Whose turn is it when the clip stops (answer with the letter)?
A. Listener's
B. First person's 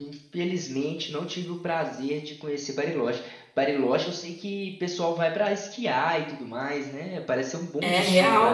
A